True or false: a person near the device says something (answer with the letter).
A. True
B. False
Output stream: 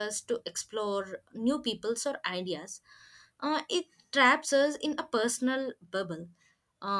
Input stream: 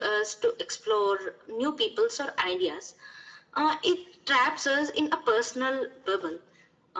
B